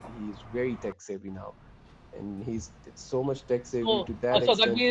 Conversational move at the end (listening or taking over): taking over